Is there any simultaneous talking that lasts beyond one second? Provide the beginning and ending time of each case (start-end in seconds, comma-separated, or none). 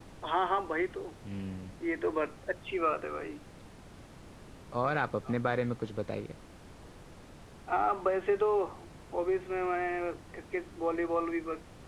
none